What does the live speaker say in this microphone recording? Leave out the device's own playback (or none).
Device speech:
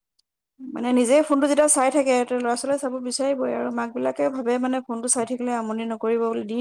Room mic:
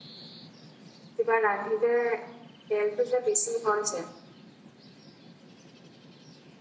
কিবা ৰান্ধো। তেলটো যে বেছি হয় যে।